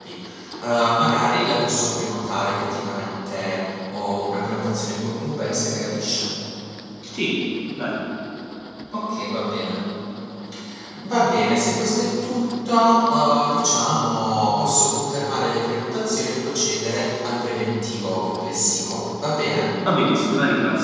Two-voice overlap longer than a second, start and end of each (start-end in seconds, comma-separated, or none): none